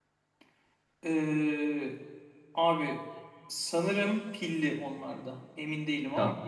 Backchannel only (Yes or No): No